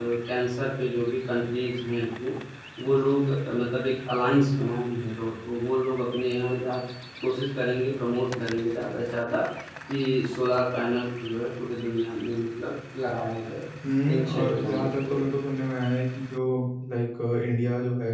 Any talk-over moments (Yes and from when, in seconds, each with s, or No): Yes, from 14.1 s